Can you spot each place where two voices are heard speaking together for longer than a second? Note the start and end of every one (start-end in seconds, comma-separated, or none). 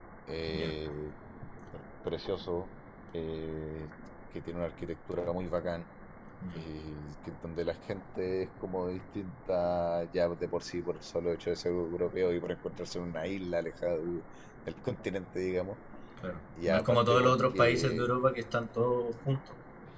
16.7-18.1